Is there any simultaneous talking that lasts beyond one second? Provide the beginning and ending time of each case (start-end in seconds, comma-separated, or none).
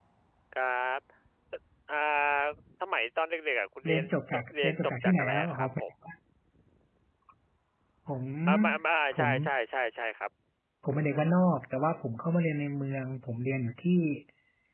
3.9-5.8